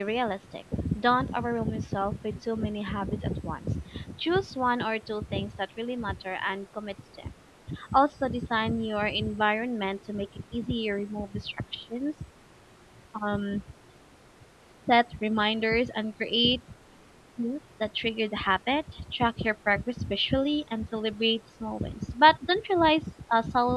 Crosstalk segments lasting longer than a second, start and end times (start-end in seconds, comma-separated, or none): none